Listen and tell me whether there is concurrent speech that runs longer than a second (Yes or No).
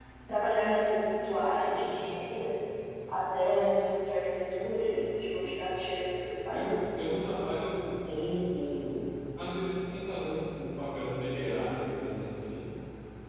No